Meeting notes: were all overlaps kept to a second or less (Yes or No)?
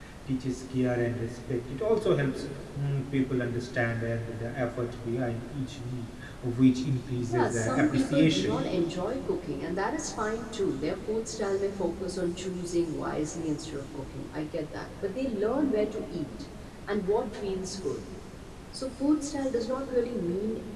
No